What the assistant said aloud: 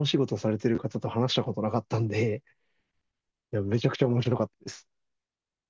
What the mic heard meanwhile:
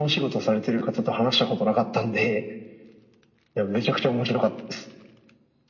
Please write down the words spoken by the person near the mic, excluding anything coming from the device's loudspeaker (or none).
none